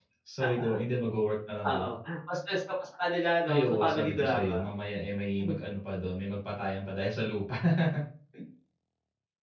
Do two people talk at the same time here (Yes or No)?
Yes